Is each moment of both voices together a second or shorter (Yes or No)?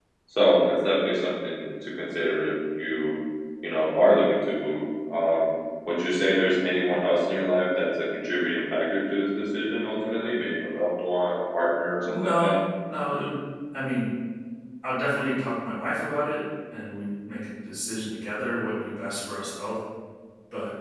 Yes